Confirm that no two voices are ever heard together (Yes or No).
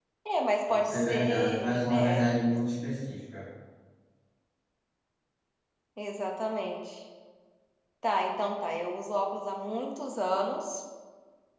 No